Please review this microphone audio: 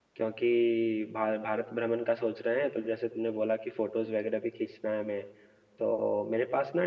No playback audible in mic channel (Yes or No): Yes